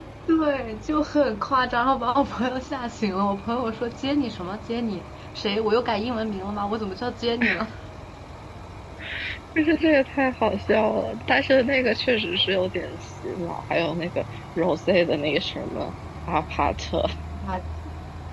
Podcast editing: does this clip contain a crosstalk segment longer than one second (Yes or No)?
No